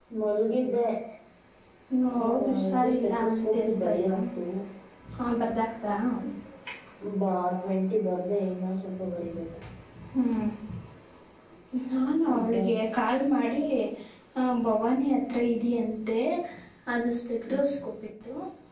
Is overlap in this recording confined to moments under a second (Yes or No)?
No